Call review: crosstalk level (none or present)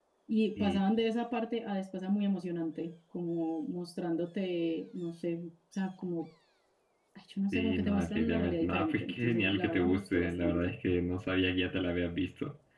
present